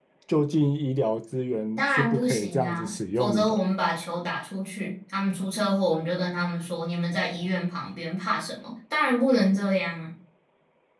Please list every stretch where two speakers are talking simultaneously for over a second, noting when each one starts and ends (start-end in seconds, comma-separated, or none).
1.8-3.6